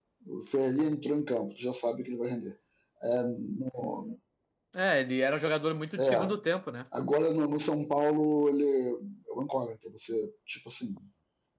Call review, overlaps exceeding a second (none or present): none